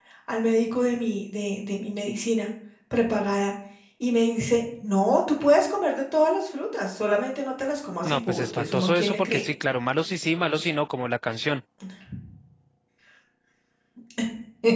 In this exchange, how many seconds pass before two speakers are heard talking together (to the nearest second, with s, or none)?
8 s